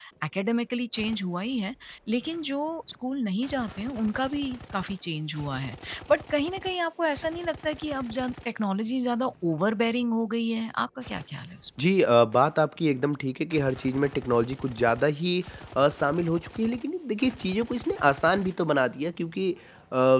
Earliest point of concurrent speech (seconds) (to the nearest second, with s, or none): none